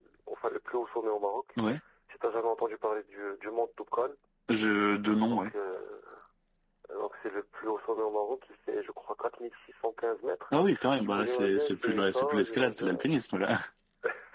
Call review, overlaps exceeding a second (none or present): present